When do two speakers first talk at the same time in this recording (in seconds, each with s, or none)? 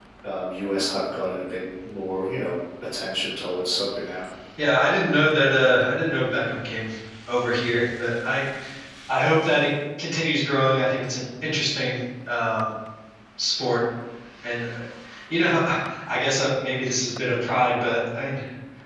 none